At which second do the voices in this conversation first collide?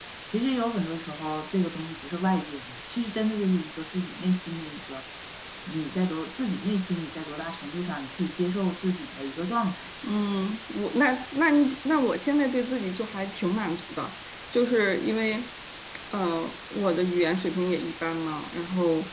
none

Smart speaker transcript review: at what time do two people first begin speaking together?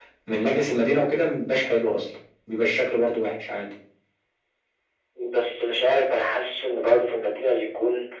none

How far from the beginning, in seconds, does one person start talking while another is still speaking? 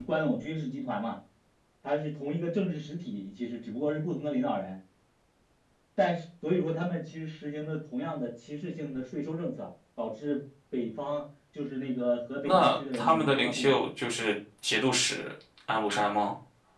12.4 s

